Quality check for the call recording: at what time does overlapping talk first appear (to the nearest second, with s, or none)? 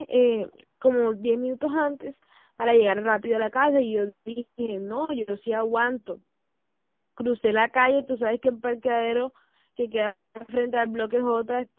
none